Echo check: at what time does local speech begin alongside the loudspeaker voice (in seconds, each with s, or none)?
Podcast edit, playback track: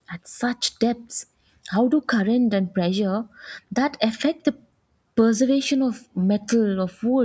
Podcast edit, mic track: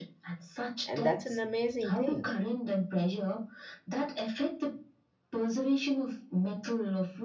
0.8 s